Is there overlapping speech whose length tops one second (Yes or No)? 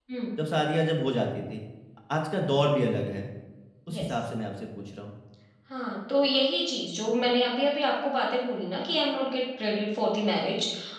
No